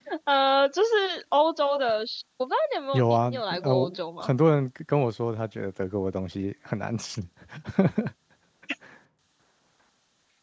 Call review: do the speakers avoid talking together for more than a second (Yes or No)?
No